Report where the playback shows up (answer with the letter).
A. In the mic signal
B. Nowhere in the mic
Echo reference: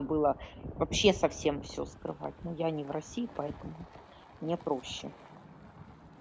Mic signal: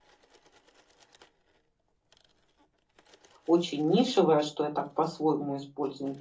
B